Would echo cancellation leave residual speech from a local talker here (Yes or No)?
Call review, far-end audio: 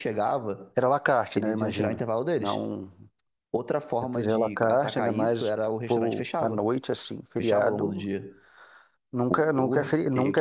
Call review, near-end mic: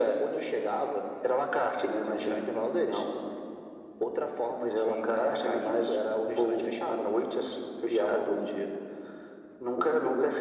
No